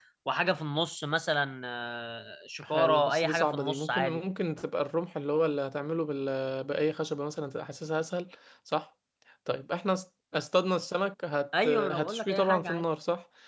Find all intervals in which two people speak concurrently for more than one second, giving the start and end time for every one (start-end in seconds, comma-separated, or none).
2.6-4.2, 11.6-12.8